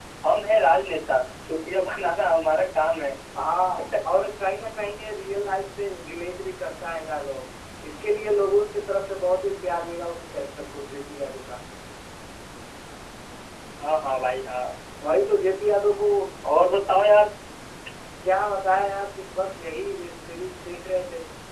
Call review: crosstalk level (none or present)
none